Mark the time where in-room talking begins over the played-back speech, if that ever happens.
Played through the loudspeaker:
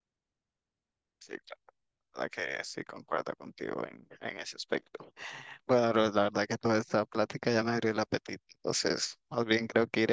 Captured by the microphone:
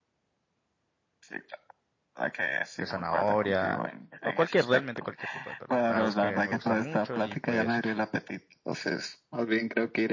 2.8 s

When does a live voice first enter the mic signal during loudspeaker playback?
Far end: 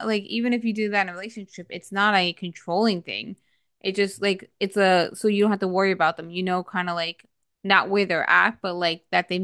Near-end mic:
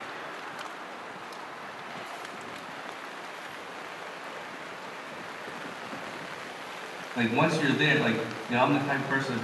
7.2 s

